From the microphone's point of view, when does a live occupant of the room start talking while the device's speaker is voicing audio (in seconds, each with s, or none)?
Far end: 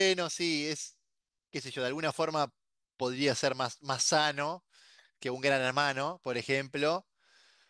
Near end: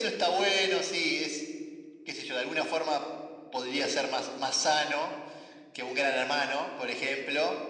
none